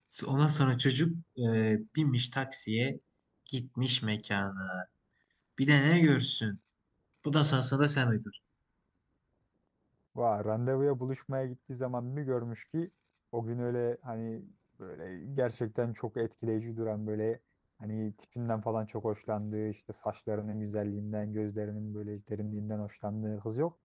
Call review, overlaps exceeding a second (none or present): none